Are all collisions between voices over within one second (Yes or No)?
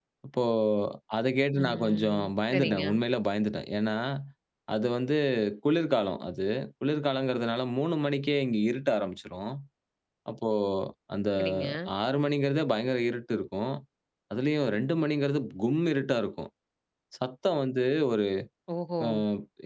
No